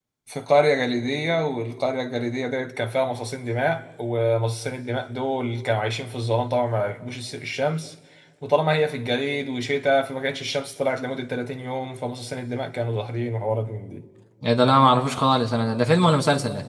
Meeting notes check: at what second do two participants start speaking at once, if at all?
none

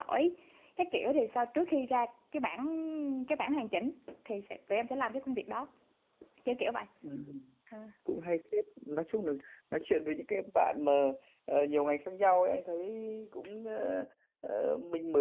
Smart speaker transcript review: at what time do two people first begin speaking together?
none

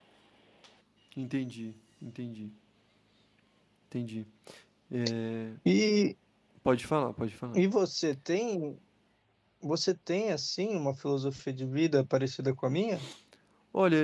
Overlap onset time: none

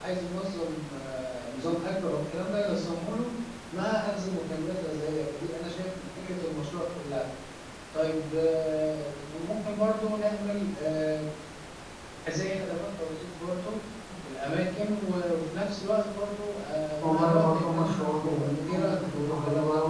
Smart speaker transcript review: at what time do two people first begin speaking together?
17 s

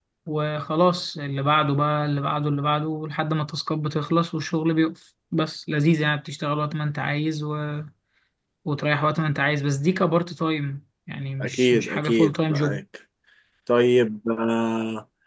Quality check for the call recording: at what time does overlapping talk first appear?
11 s

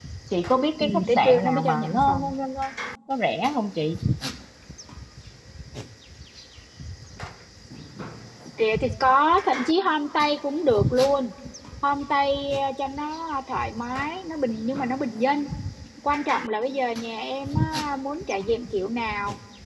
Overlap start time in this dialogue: 1 s

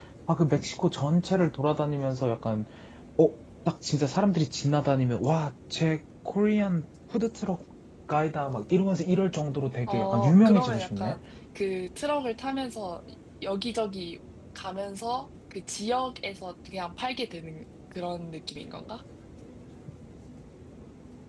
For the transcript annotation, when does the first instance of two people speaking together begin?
10 s

